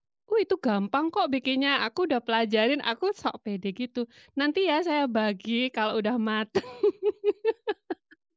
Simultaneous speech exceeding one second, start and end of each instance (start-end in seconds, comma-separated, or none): none